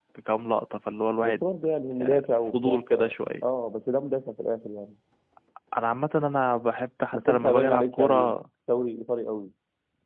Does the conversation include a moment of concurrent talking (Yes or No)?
Yes